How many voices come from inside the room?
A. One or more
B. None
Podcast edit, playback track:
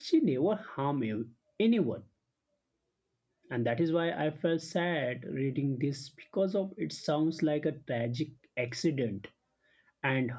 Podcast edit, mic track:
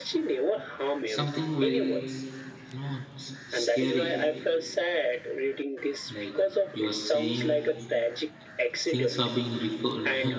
A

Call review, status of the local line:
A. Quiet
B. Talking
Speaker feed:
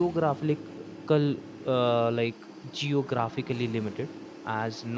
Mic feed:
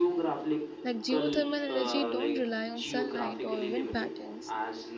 B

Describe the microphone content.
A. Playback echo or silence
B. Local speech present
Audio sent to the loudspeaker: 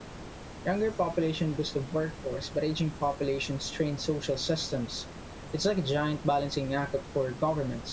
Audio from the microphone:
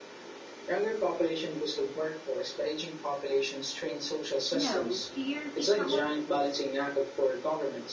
B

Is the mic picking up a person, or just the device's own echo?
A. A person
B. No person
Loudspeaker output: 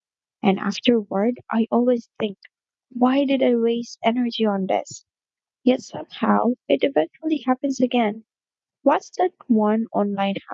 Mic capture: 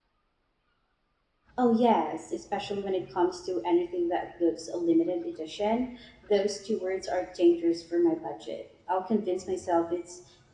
A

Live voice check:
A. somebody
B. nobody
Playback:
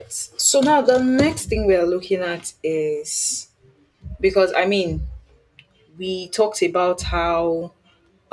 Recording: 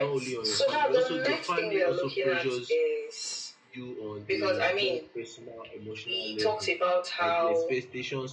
A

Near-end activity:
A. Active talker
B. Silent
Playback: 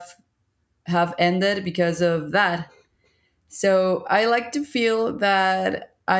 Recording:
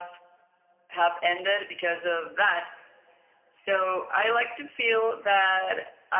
B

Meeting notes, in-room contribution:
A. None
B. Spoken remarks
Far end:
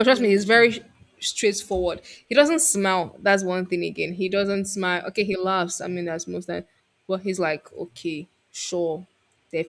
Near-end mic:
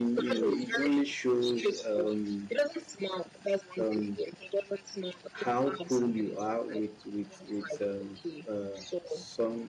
B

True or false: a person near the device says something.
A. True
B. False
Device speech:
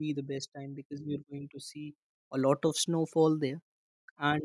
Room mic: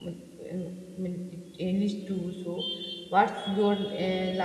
A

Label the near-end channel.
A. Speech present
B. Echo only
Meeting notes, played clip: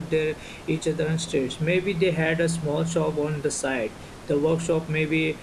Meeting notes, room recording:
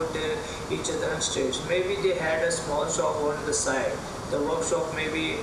B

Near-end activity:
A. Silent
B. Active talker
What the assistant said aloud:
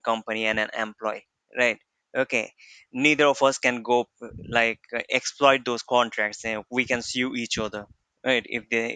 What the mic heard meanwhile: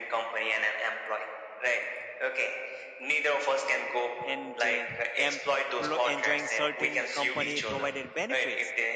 B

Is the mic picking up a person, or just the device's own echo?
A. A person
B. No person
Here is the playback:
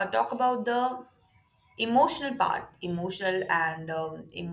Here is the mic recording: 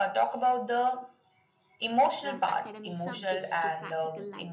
A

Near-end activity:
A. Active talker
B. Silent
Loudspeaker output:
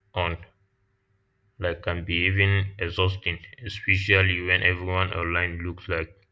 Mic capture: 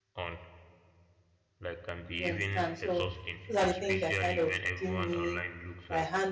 A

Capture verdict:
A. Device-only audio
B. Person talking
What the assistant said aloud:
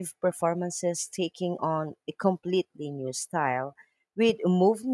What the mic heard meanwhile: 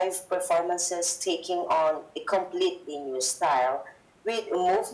A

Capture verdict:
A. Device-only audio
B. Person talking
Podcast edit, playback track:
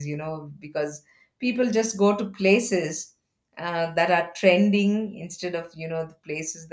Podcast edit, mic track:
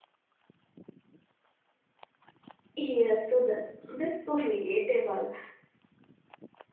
B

